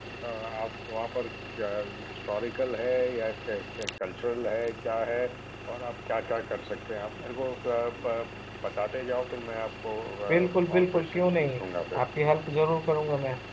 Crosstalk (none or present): present